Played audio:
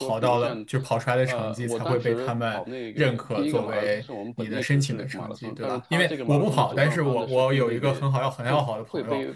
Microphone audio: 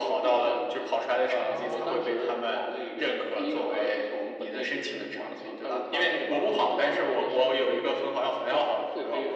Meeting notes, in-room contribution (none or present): present